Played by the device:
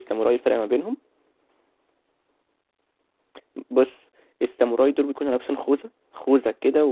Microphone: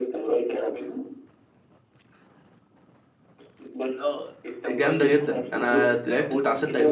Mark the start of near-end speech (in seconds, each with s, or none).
4.0 s